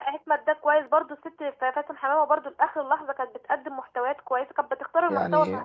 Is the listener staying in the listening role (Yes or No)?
No